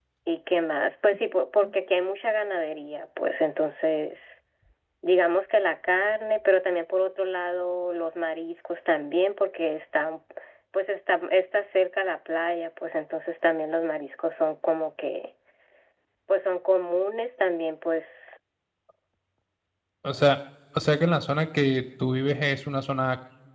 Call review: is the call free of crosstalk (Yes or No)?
Yes